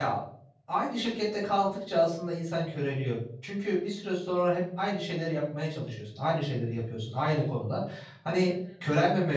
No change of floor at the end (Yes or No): Yes